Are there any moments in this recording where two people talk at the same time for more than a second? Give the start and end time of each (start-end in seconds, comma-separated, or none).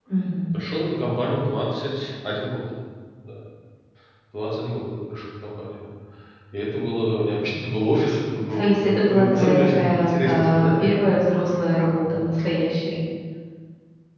8.5-11.0